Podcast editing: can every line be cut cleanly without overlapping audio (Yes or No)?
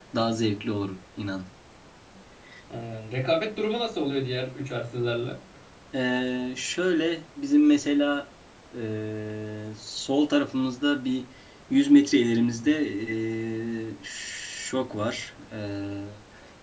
Yes